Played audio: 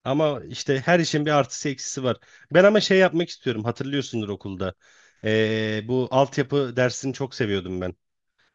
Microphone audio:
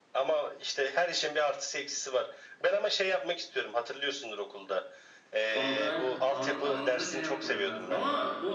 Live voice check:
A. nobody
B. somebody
B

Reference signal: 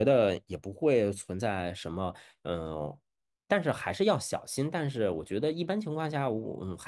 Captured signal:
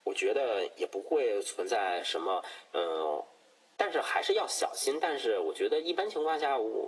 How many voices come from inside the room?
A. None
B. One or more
A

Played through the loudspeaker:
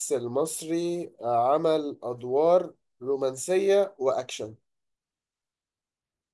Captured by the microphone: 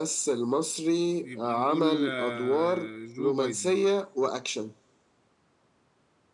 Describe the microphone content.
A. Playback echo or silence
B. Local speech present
B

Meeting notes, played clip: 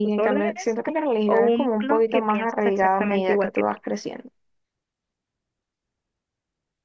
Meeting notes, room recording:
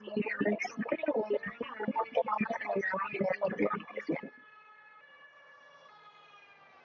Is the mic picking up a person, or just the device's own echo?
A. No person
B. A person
A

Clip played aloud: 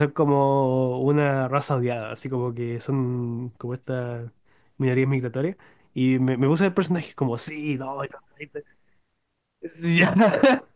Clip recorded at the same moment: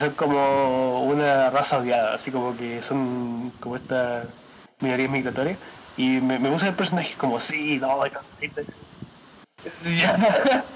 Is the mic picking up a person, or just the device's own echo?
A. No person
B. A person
A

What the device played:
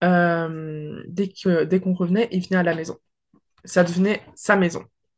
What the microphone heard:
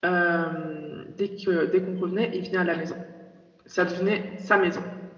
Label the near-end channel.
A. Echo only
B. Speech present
A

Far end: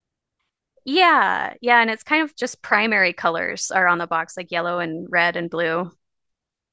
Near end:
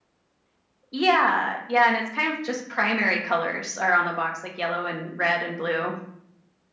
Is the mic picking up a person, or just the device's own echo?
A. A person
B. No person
B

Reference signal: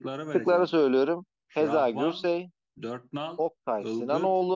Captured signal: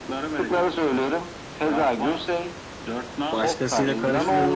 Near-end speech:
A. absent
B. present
B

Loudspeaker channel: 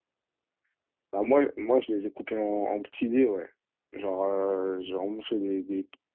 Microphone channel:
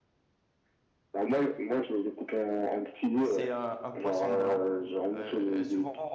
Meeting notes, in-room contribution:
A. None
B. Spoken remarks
B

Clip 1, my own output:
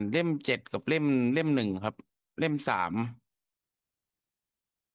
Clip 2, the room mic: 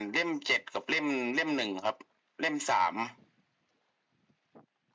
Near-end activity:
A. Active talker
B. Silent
B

